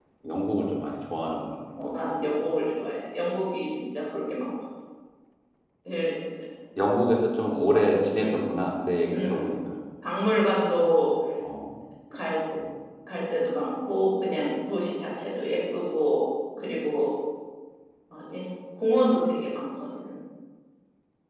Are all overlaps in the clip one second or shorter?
Yes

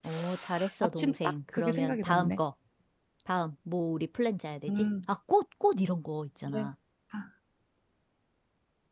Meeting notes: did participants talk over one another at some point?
Yes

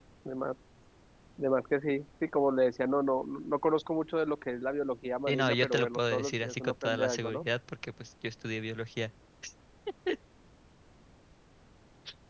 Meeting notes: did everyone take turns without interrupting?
No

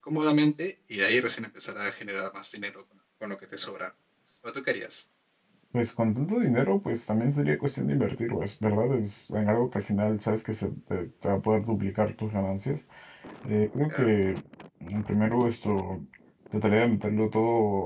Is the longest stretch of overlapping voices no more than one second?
Yes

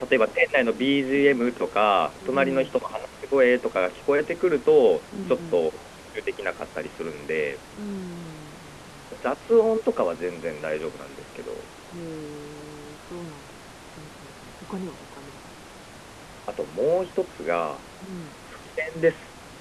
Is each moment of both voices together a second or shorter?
Yes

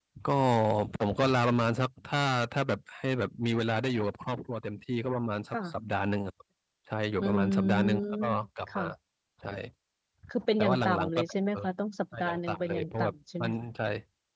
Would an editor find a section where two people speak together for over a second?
Yes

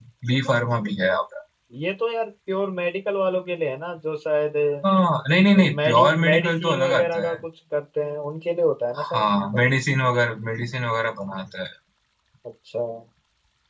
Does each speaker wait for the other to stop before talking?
No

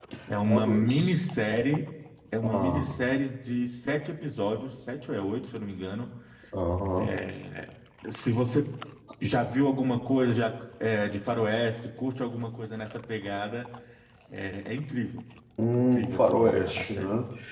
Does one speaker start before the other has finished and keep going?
Yes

